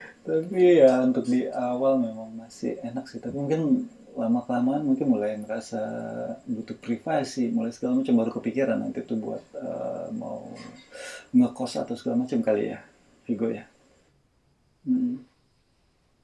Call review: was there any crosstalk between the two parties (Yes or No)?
No